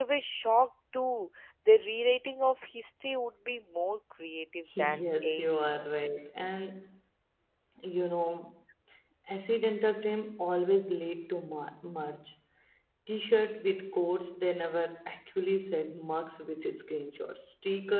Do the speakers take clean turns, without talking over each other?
No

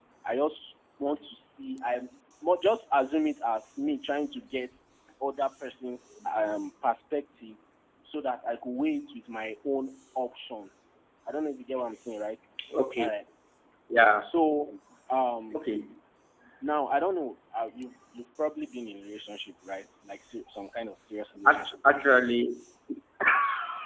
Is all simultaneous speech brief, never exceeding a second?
Yes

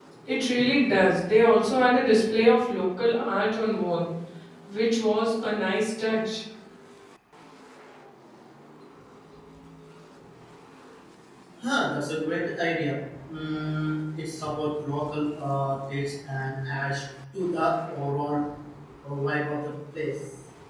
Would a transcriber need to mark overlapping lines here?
No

